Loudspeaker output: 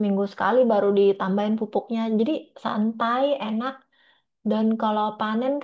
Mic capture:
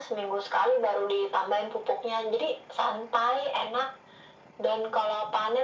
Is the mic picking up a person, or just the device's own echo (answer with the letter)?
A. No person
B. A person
A